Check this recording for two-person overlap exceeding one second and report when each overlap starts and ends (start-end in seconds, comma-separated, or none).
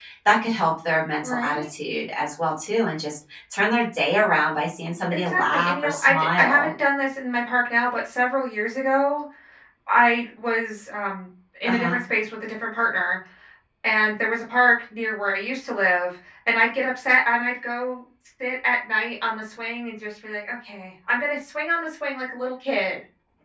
5.1-6.7